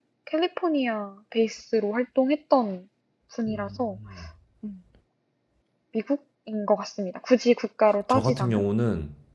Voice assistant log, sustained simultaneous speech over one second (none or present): none